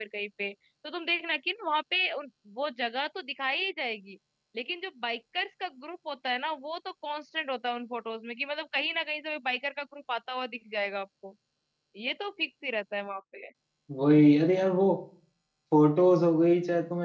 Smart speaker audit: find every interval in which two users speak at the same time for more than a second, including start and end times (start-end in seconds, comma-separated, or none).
none